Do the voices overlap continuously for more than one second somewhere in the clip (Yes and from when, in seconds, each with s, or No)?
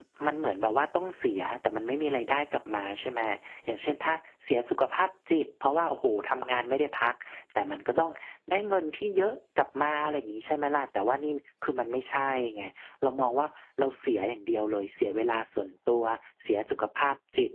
No